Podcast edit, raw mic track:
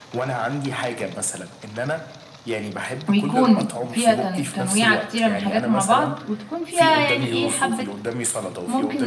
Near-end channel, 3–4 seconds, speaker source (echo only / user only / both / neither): both